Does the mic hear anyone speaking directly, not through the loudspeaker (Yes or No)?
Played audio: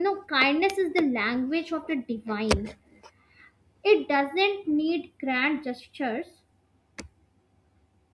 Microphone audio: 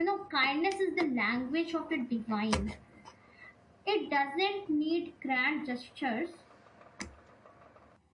No